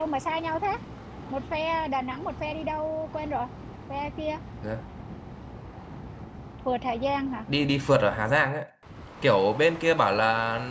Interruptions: none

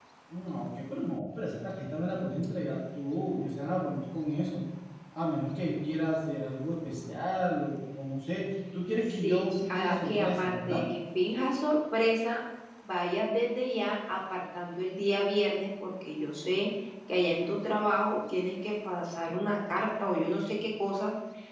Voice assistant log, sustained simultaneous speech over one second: present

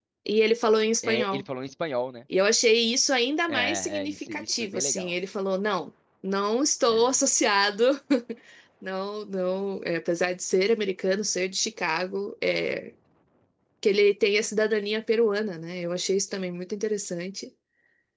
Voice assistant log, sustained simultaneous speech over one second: present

